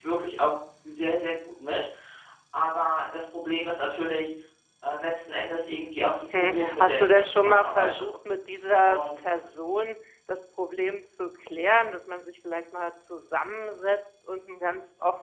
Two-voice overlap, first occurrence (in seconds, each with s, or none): 6.3 s